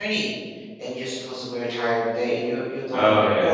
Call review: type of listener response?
listening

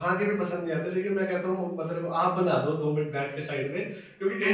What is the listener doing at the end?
listening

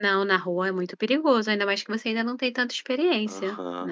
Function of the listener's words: taking over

